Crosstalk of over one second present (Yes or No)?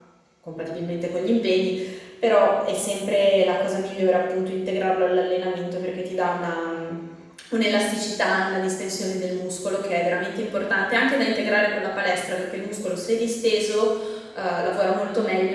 No